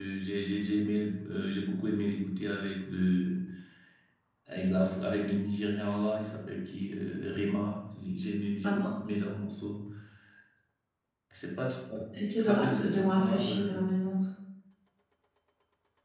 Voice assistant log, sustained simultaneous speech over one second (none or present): present